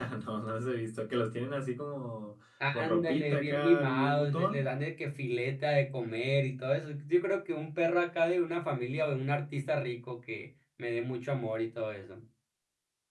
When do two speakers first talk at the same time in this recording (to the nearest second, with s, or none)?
3 s